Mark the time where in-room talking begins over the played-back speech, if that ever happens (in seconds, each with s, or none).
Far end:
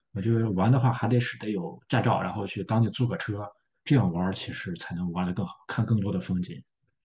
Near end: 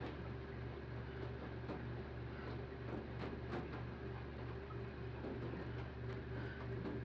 none